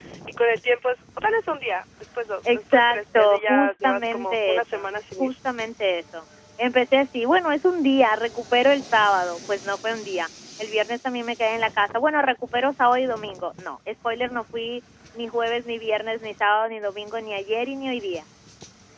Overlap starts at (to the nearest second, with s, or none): 2 s